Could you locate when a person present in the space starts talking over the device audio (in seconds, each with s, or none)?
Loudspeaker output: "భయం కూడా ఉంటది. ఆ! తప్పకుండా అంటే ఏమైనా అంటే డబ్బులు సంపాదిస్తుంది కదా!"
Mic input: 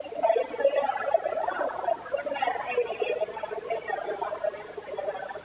none